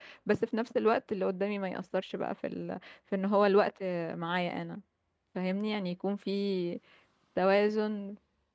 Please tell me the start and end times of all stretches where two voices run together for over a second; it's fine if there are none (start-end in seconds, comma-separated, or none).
none